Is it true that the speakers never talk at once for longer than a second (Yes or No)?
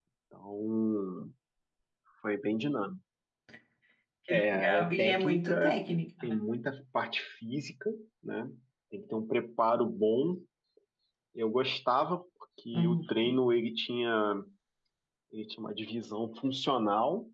No